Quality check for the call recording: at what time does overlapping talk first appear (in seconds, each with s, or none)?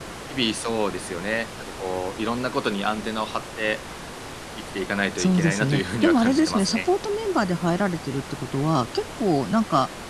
5.2 s